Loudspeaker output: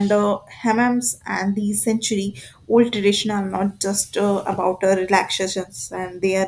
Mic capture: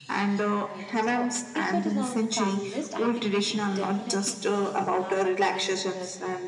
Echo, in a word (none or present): present